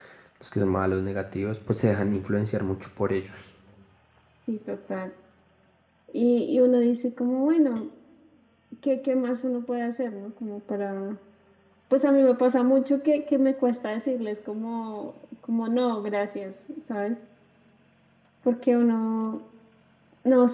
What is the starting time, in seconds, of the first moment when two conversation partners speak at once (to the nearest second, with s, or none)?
none